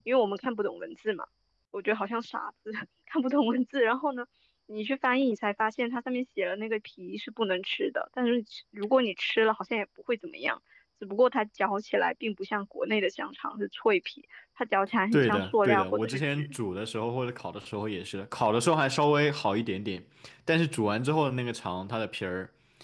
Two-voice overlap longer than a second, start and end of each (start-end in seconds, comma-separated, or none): 15.1-16.5